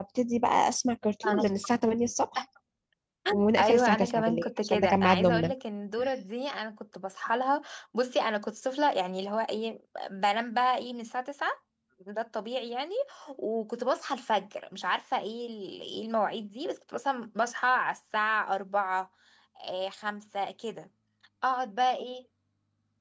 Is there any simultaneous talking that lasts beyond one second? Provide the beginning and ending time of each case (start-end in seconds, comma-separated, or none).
3.6-5.5